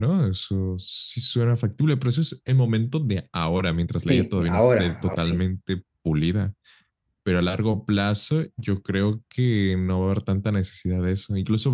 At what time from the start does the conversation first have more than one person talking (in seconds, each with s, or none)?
4.1 s